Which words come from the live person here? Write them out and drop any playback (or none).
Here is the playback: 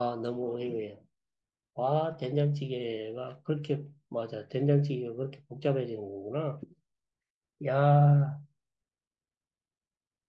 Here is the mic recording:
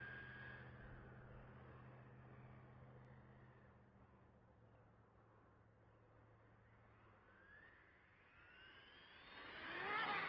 none